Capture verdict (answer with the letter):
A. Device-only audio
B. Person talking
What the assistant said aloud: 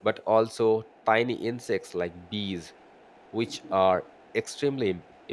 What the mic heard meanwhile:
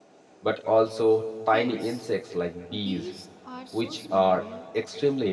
B